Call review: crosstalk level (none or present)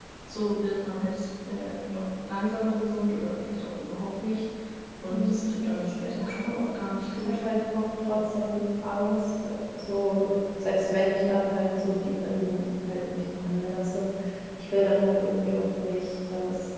present